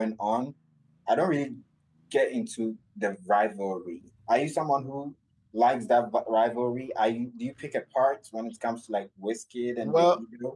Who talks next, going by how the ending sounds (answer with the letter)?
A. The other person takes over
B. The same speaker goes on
A